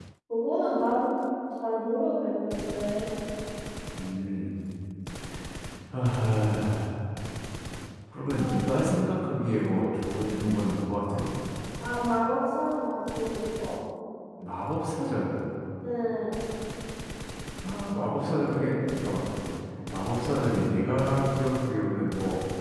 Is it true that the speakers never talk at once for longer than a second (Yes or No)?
Yes